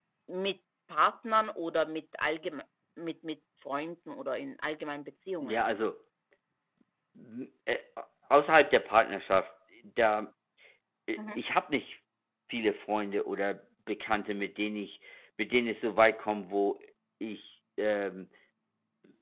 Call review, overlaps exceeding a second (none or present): none